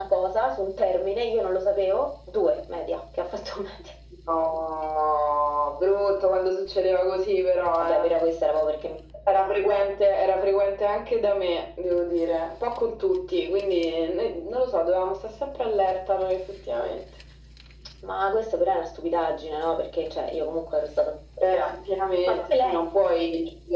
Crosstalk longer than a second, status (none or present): none